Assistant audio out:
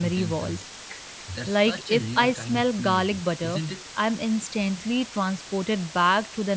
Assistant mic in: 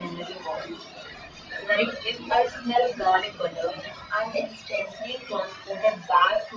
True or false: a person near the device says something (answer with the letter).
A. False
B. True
A